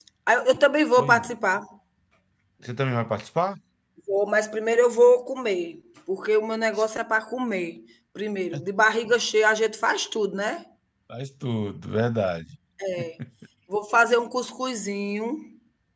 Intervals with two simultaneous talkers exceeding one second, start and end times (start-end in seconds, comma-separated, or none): none